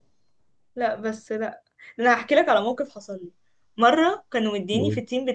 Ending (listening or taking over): listening